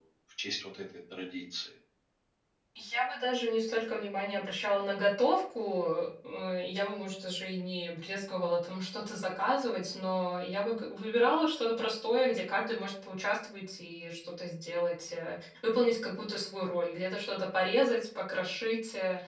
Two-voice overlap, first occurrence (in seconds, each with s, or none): none